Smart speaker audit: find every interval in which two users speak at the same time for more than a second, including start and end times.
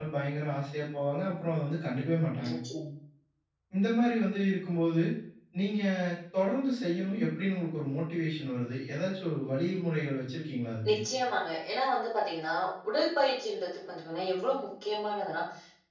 none

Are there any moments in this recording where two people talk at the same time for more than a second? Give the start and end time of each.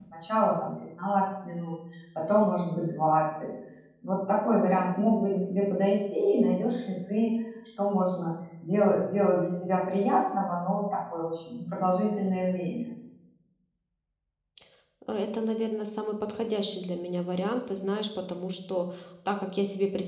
none

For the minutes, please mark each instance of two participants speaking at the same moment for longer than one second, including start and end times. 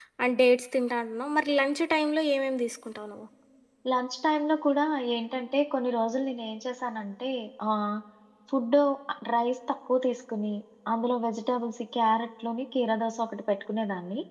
none

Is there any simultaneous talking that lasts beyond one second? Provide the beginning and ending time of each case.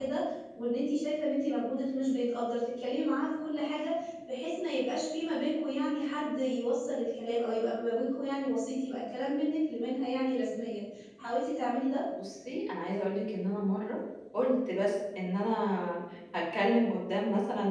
none

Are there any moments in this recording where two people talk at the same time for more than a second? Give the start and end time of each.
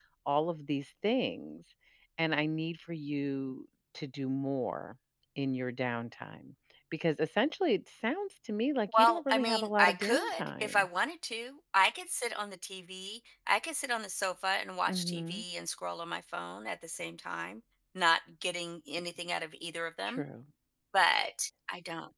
9.0-10.9

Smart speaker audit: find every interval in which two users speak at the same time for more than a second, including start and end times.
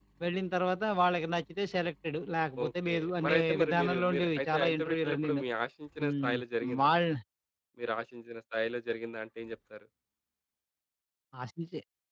2.6-5.4

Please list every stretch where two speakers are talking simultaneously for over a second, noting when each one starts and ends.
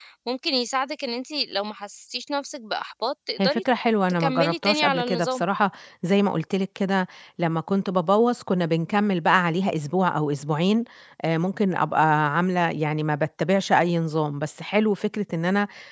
4.2-5.4

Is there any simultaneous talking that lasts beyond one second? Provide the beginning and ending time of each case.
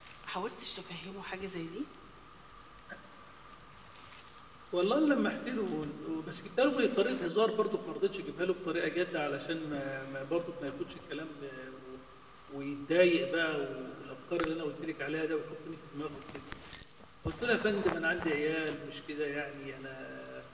none

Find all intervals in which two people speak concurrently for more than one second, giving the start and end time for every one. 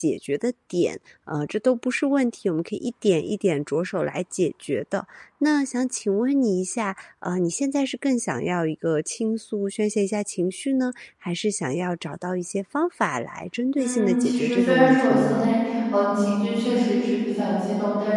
13.8-15.5

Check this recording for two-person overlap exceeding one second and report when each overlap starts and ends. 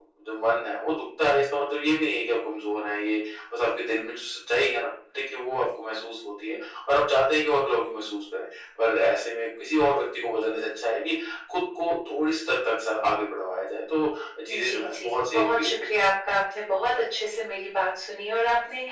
14.5-15.9

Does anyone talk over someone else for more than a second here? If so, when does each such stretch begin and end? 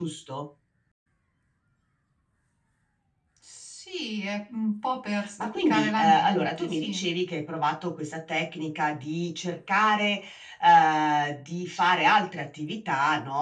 5.4-7.0

